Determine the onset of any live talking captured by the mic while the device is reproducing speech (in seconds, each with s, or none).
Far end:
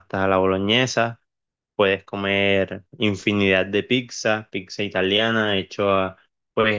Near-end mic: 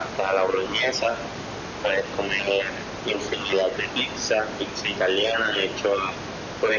none